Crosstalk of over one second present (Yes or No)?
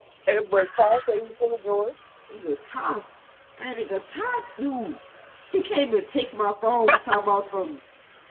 No